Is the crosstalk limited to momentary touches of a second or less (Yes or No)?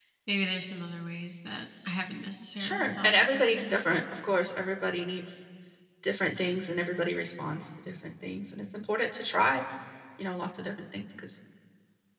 No